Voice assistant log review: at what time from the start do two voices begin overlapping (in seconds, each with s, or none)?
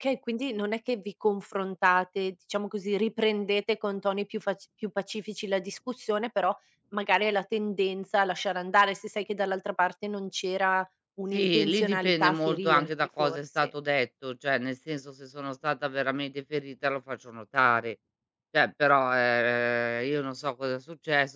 11.3 s